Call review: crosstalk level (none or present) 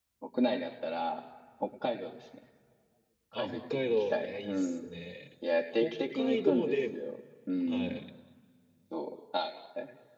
present